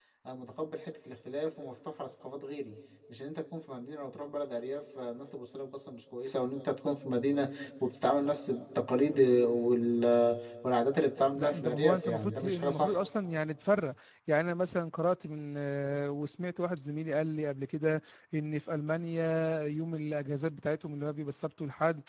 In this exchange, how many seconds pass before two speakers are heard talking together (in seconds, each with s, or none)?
11.3 s